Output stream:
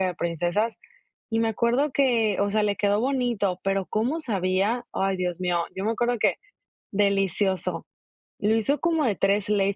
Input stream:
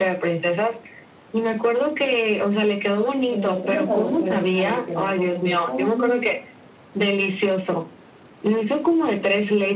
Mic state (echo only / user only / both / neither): both